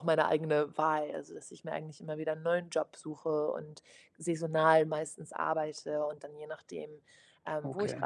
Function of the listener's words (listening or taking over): listening